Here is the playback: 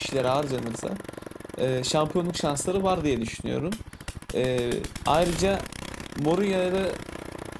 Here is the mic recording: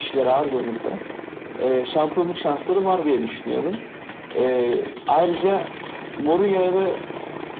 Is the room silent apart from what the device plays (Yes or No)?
Yes